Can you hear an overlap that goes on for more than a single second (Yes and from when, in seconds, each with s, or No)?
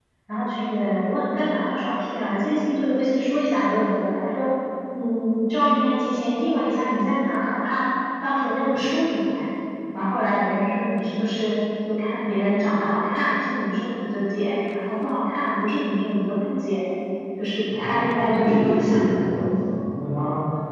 Yes, from 17.8 s